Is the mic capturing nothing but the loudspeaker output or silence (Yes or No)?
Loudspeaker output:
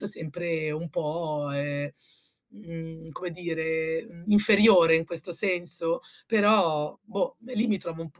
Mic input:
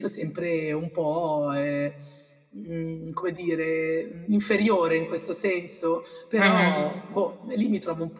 No